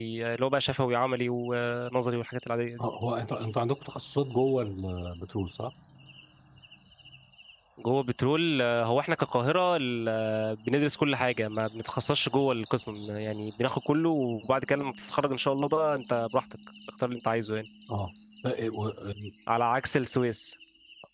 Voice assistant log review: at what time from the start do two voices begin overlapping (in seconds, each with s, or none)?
none